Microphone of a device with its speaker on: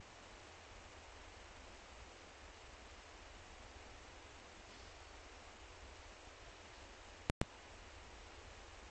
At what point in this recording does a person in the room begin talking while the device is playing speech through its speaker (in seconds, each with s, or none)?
none